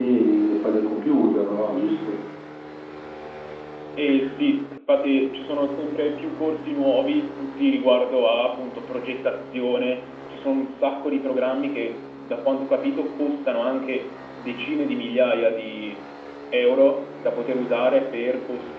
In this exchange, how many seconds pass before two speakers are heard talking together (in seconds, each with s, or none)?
none